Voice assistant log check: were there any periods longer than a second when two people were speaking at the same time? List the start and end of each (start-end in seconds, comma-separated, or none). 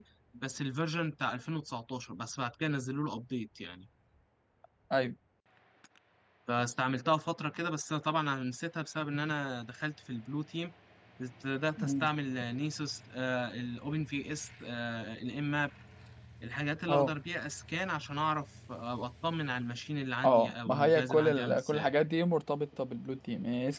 20.2-21.9